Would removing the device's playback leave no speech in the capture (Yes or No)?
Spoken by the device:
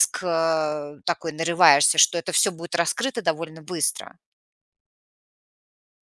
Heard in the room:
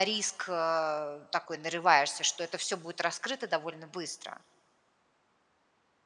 Yes